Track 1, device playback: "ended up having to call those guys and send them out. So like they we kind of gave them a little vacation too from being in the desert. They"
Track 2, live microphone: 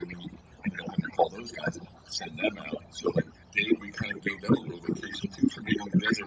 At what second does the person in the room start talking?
none

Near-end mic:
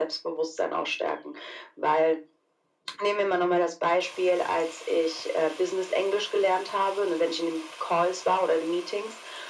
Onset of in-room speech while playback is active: none

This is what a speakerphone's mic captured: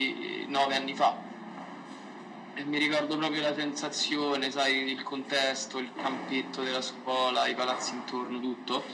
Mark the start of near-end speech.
none

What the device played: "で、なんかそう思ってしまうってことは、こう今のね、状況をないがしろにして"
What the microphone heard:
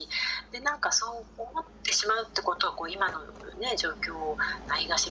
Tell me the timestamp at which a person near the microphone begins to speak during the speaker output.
none

